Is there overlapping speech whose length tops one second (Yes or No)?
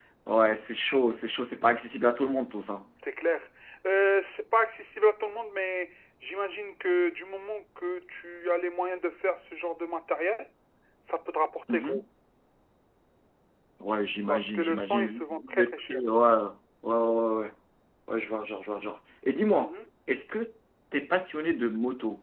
Yes